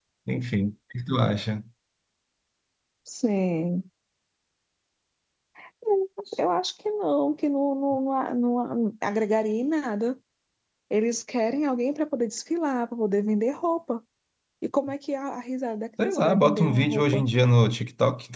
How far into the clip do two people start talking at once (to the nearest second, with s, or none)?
16 s